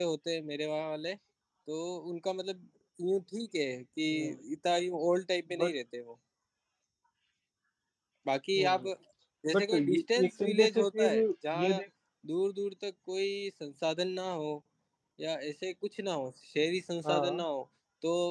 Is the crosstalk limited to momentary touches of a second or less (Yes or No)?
No